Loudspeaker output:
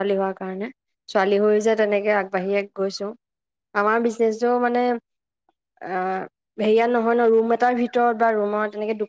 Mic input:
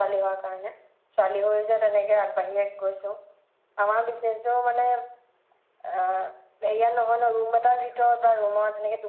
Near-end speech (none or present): none